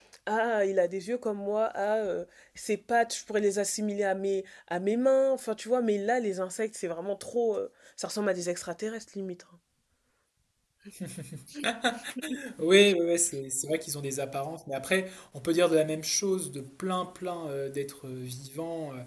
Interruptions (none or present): none